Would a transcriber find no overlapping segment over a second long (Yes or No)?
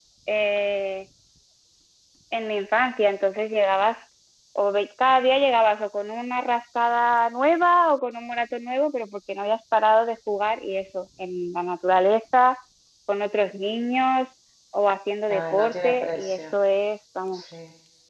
No